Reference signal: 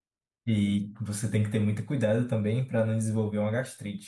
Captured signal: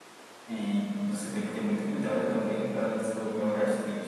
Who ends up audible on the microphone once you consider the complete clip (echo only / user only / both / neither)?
echo only